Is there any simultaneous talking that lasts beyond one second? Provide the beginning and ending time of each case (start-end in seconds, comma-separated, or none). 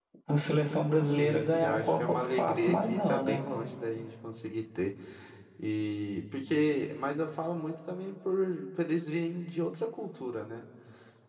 1.1-3.4